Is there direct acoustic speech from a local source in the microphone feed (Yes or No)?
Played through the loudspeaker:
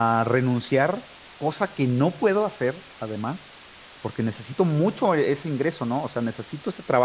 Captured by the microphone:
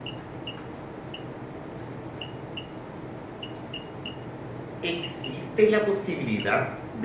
Yes